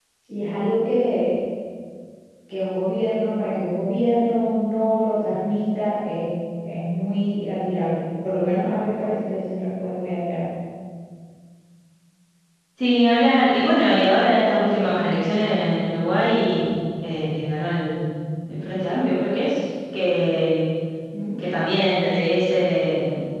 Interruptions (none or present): none